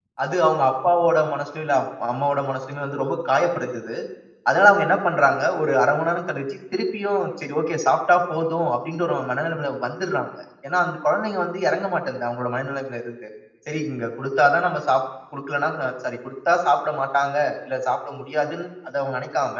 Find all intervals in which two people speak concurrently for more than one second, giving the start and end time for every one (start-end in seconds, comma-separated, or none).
none